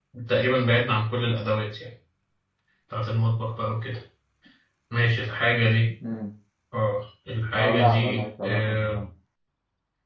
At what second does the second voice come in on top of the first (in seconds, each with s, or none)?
7.5 s